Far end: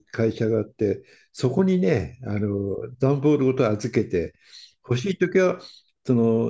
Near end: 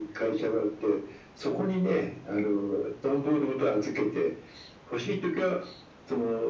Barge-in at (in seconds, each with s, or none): none